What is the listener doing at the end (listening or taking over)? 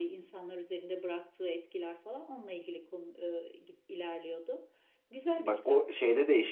taking over